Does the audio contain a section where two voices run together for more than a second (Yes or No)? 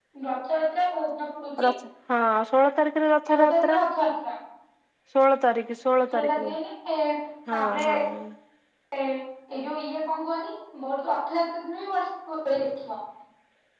No